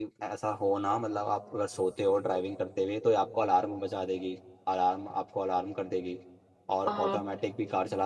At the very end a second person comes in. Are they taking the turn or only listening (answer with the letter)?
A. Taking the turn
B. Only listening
B